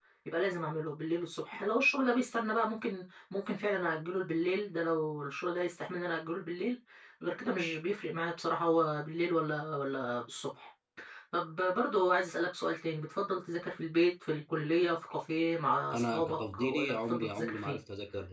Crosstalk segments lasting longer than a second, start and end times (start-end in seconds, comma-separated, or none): 15.9-17.8